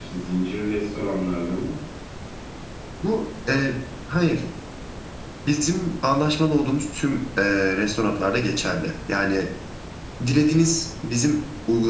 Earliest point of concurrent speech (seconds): none

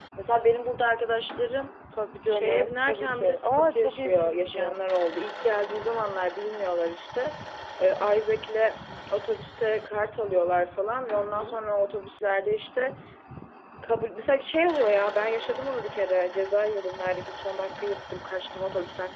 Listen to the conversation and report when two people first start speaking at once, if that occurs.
2.3 s

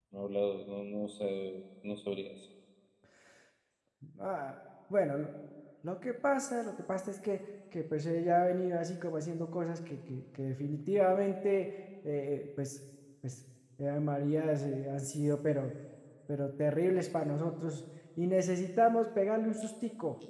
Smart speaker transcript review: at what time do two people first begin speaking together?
none

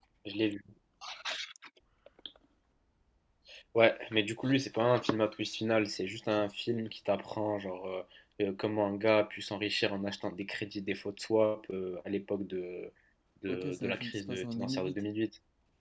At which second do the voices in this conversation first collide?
13.5 s

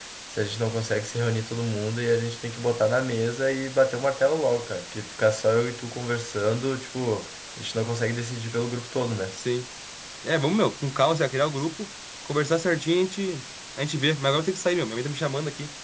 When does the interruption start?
none

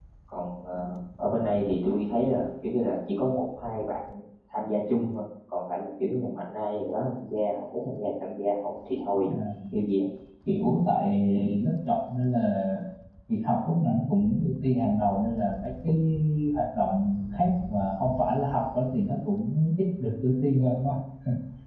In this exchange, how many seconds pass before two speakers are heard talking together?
none

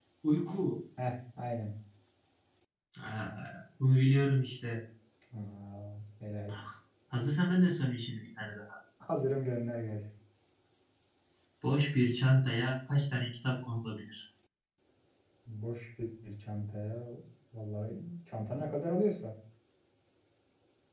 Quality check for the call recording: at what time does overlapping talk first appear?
none

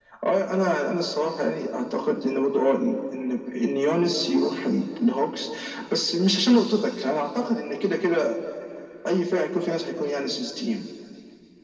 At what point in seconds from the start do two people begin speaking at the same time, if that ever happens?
none

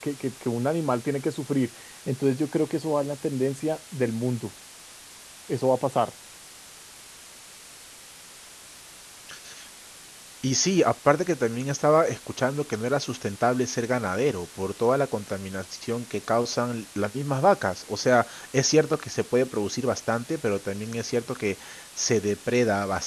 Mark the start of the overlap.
none

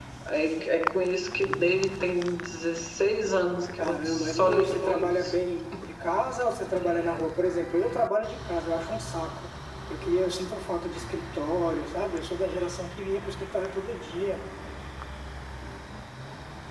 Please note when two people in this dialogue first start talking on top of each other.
3.8 s

